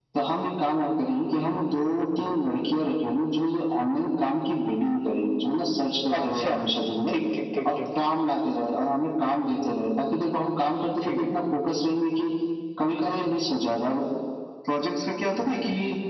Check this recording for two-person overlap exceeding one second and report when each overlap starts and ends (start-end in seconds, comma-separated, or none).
none